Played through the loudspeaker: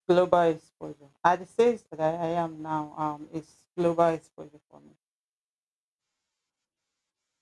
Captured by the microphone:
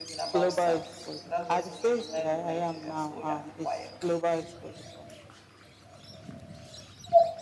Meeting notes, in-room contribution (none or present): present